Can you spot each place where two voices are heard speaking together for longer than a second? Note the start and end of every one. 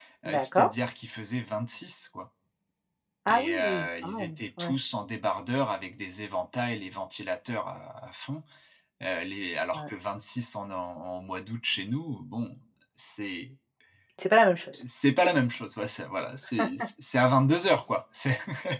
3.3-4.7

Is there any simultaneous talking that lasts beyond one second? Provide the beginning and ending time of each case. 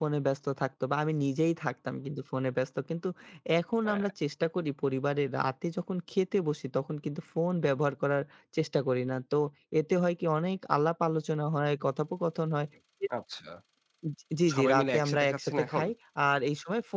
14.5-15.8

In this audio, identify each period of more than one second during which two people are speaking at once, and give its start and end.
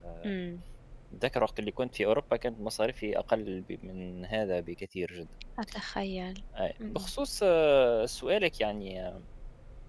none

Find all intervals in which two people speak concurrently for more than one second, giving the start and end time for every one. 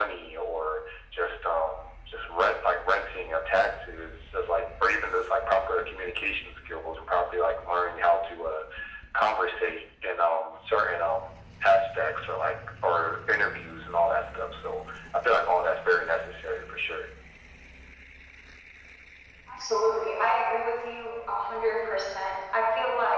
none

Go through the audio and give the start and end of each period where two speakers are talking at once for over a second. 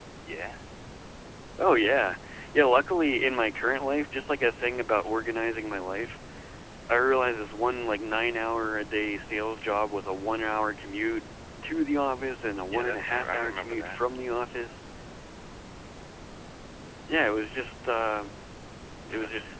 12.7-14.0

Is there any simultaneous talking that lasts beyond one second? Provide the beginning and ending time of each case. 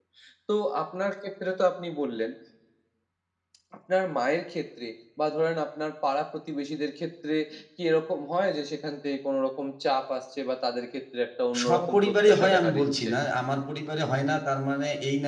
11.6-13.1

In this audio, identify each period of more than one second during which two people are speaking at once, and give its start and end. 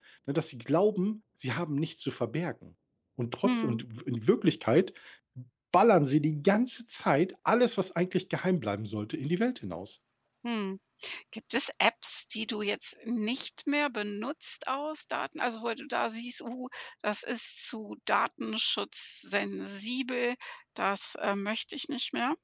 none

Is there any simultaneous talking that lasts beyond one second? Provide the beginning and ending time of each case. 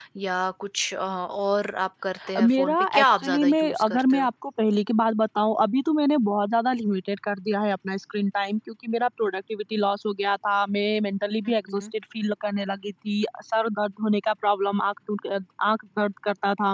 2.4-4.3

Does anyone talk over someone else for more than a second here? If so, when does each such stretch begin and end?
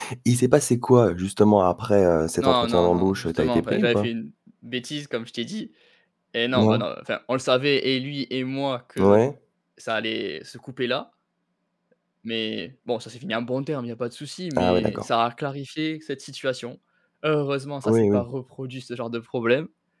2.4-4.1

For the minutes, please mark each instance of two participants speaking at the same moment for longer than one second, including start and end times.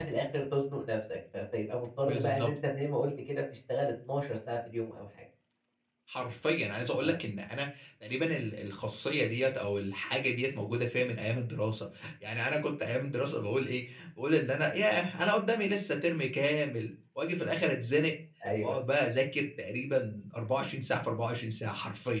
none

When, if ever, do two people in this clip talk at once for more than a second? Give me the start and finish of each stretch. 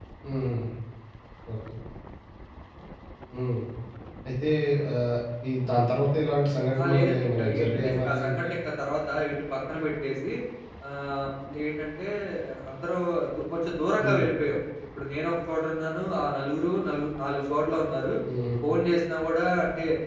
6.8-8.5

